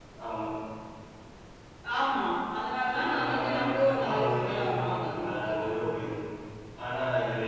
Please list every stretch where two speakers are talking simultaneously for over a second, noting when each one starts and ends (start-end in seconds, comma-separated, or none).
3.0-6.0